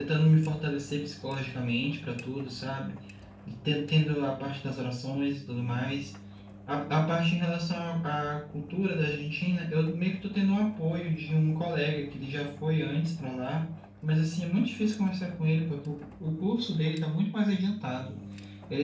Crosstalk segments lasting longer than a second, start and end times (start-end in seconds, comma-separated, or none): none